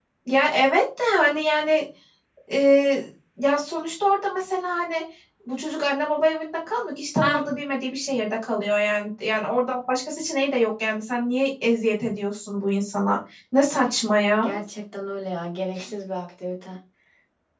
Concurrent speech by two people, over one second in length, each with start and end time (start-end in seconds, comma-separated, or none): none